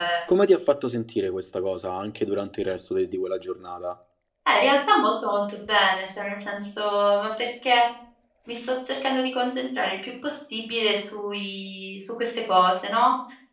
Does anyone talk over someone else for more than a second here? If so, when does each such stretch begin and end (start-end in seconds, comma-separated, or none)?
none